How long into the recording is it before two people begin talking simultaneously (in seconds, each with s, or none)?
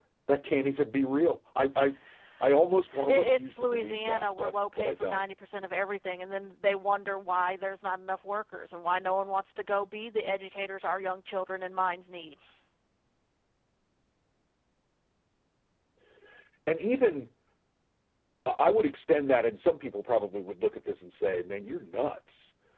3.1 s